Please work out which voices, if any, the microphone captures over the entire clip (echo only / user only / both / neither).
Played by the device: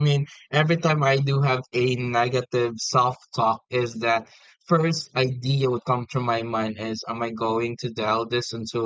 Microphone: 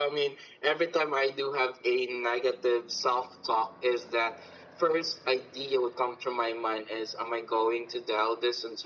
echo only